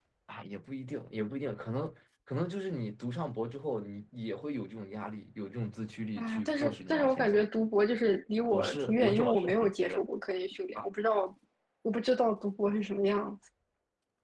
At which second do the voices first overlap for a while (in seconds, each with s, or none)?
6.2 s